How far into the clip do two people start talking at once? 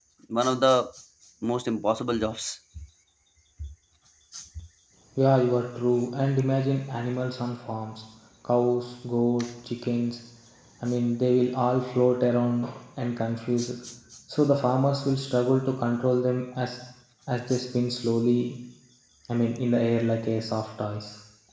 none

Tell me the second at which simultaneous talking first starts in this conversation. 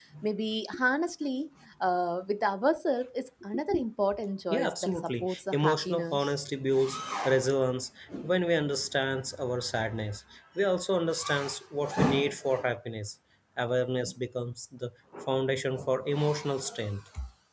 4.5 s

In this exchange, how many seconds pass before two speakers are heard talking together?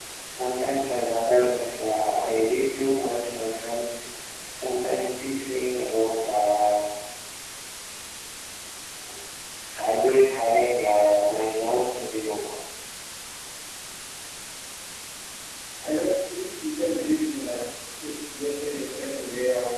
none

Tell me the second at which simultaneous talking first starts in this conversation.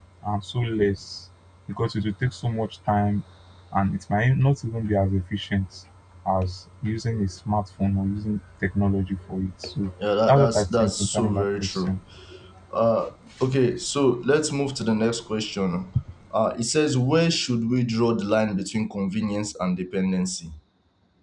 10.3 s

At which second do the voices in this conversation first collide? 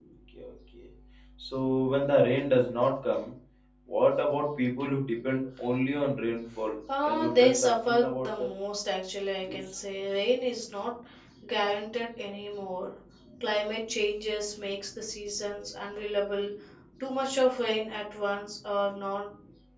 6.9 s

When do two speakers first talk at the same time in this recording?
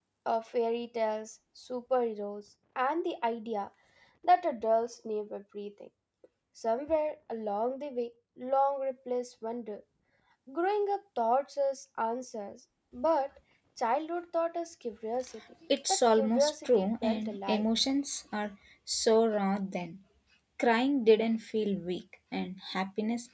15.7 s

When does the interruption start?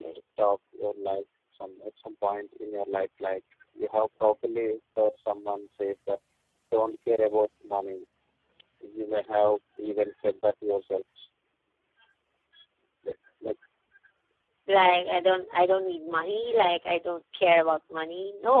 none

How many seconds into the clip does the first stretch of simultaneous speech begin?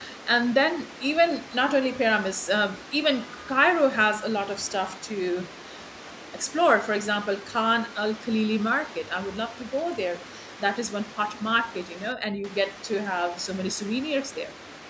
none

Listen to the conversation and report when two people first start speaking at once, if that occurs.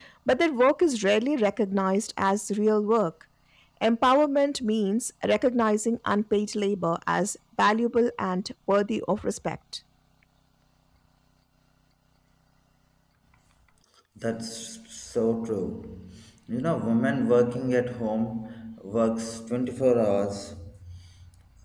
none

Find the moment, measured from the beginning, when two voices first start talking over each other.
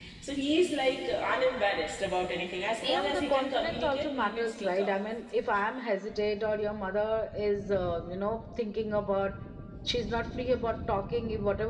2.8 s

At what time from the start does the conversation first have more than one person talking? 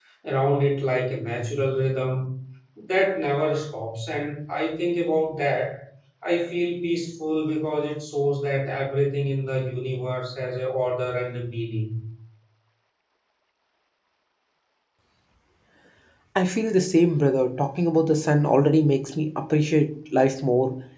none

